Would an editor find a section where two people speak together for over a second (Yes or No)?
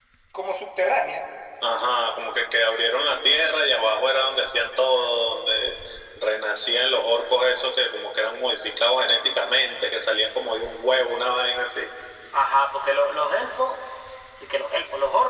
No